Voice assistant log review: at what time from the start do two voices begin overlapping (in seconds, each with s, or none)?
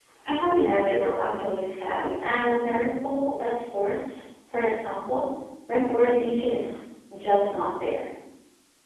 0.5 s